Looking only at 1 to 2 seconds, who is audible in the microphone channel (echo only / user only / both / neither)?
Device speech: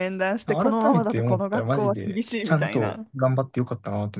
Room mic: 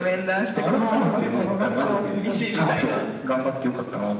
both